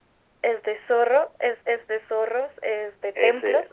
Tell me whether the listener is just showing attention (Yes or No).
Yes